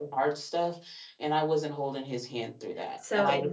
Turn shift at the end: Yes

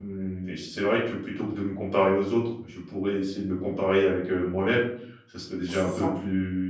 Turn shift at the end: No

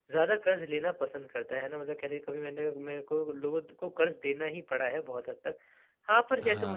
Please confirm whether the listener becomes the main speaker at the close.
No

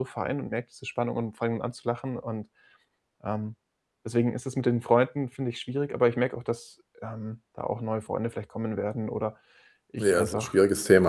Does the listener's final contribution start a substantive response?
Yes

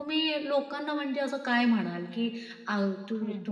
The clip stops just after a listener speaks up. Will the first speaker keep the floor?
Yes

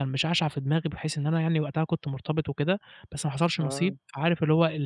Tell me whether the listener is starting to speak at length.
No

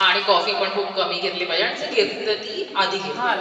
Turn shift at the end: Yes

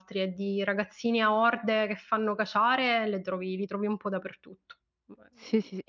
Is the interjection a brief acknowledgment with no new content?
No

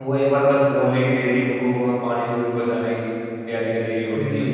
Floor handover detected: Yes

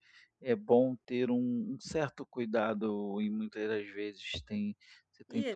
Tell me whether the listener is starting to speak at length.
Yes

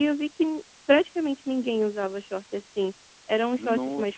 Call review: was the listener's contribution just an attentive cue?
Yes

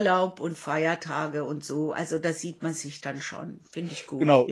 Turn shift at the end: Yes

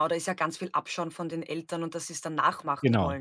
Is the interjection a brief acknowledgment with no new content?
No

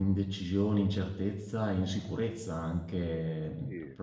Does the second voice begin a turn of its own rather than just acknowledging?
No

